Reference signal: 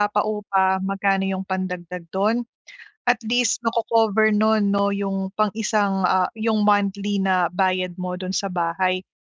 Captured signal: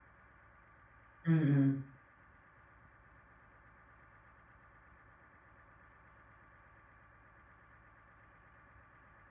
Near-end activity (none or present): present